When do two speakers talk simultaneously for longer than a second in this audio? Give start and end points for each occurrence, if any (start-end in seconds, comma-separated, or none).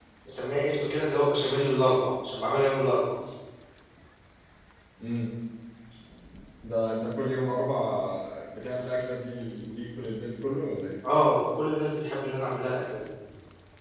none